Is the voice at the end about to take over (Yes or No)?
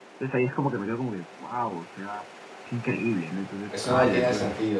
Yes